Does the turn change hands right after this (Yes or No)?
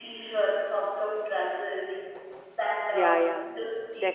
Yes